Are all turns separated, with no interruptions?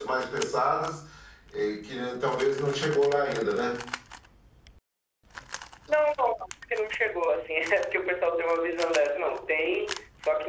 Yes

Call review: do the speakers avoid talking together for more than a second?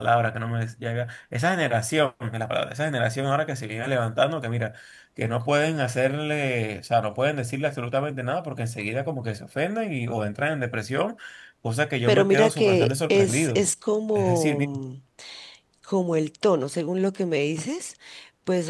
No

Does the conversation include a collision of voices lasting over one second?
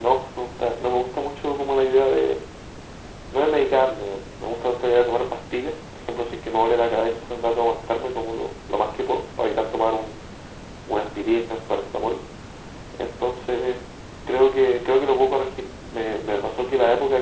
No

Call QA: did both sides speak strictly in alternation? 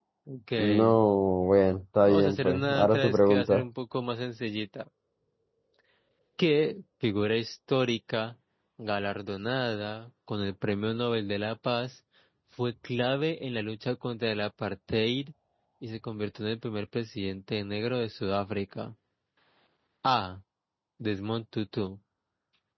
No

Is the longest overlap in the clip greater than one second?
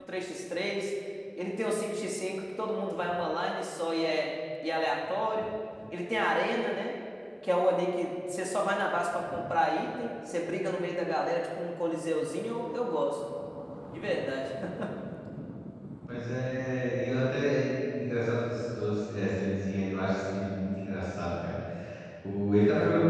No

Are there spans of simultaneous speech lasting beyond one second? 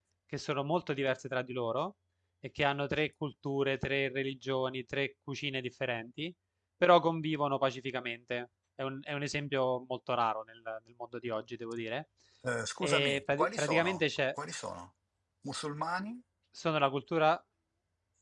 Yes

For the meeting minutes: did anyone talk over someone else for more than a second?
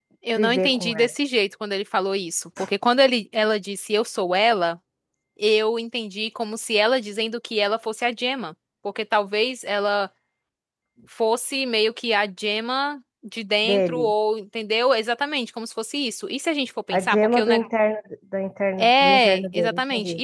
Yes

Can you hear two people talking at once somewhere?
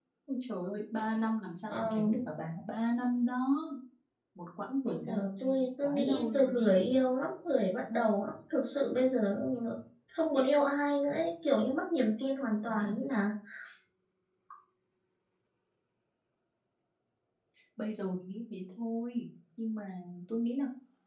Yes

